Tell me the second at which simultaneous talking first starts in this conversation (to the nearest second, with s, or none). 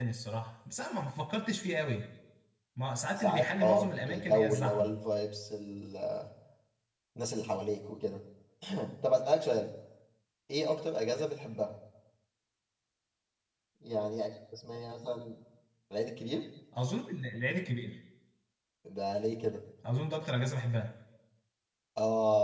3 s